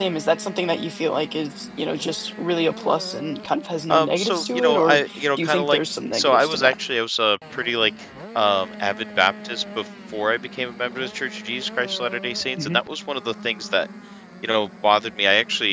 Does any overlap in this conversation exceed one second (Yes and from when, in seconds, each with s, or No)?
Yes, from 3.9 s